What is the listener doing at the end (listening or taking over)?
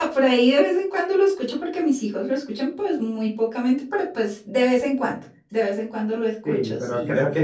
taking over